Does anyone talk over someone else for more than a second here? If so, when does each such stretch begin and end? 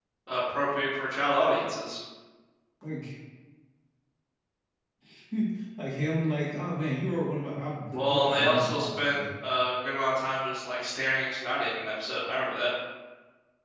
7.9-9.2

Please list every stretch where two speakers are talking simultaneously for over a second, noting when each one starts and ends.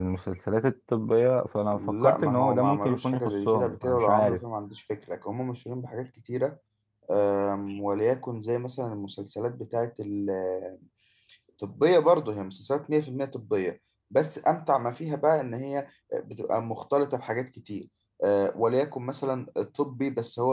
1.7-4.4

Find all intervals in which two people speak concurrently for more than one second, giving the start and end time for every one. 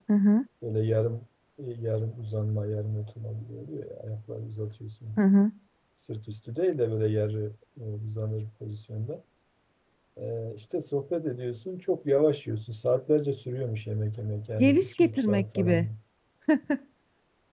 14.6-15.9

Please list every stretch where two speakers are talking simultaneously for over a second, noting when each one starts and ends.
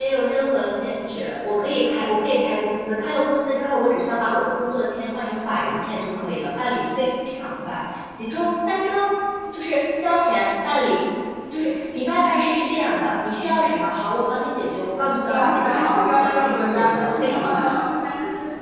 15.2-17.6

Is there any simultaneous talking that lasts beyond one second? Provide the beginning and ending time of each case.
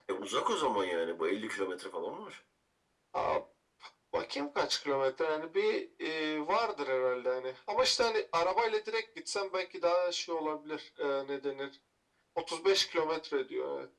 none

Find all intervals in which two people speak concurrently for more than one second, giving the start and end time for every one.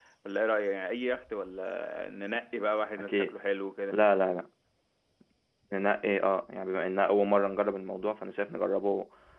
none

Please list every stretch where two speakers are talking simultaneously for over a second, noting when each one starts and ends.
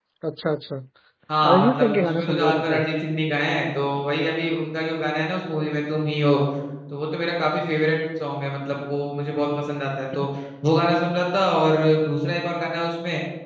1.5-2.8

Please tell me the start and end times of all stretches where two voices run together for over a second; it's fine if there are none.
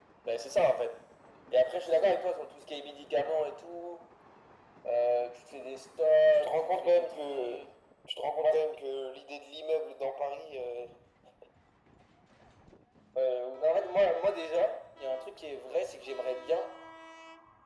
6.3-7.6

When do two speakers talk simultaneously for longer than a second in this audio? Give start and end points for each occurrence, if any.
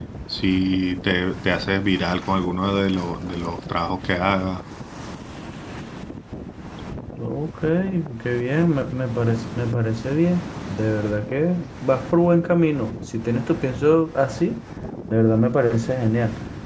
none

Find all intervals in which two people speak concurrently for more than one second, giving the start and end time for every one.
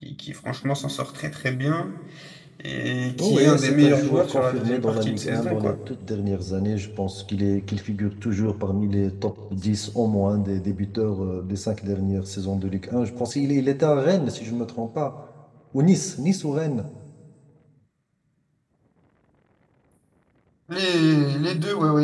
3.2-5.8

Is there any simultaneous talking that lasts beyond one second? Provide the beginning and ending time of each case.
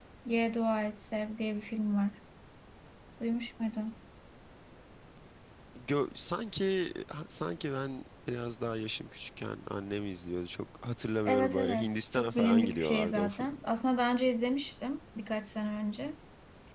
11.2-13.6

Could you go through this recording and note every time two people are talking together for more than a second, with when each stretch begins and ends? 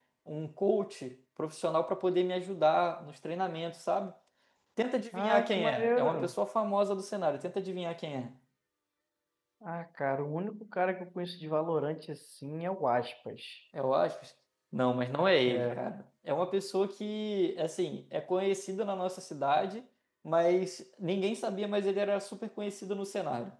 5.1-6.3

